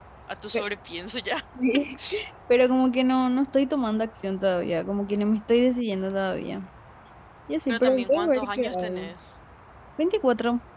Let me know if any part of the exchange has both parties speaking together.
Yes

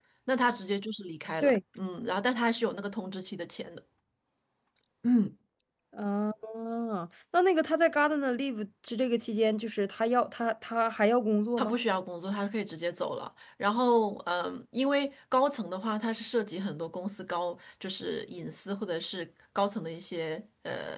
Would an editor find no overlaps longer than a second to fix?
Yes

